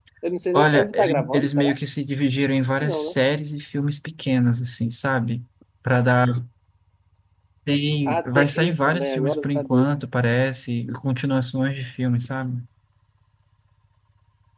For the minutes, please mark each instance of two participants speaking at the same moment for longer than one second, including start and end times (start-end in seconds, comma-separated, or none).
0.5-1.8, 8.1-9.8